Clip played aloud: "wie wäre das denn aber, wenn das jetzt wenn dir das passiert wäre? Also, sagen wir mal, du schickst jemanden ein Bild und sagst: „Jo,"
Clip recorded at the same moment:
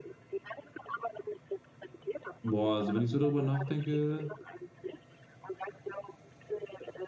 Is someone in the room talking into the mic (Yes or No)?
Yes